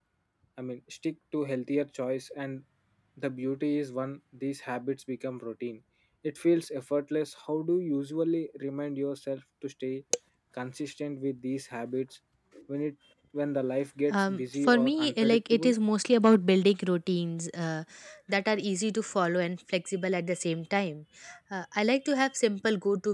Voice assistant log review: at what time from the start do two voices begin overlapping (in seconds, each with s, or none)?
14.1 s